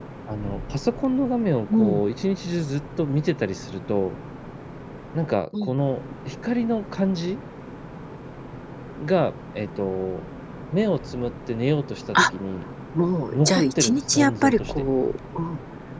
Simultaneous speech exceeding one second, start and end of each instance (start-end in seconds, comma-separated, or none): 13.3-14.8